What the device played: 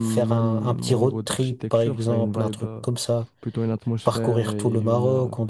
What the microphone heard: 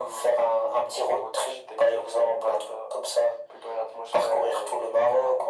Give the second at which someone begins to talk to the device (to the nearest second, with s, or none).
none